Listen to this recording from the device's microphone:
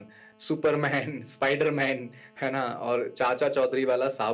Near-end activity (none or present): none